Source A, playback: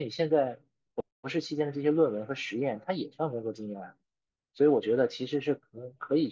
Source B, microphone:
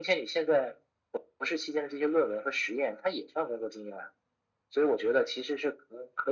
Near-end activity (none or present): none